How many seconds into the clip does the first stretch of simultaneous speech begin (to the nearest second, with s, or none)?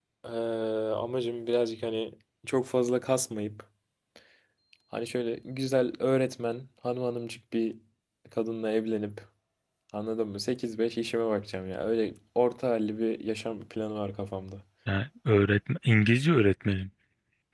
none